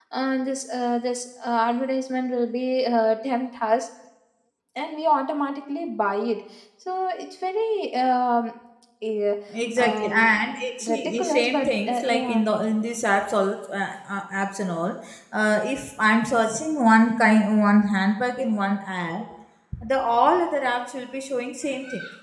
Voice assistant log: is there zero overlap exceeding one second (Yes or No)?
No